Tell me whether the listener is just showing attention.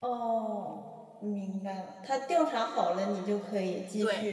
No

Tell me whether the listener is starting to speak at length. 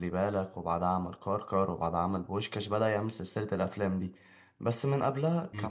Yes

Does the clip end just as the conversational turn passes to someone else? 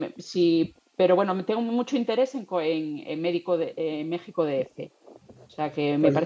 No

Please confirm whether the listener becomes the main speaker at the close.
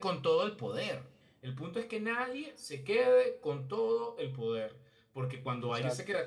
No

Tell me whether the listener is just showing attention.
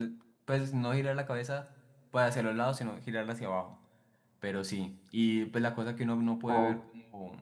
Yes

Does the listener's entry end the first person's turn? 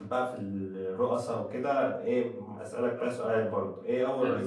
No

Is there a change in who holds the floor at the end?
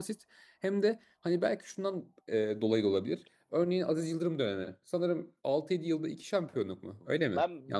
Yes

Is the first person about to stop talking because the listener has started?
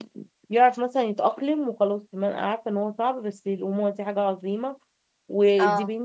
No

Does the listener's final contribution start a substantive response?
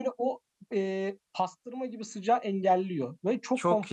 Yes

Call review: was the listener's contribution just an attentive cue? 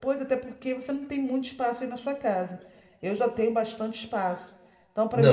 No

